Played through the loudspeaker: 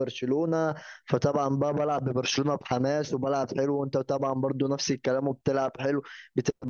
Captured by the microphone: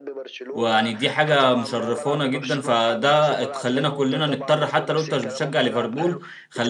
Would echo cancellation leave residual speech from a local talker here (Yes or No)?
Yes